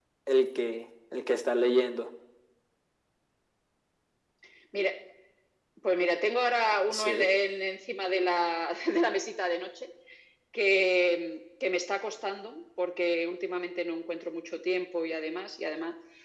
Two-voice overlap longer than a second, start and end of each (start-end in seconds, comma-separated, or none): none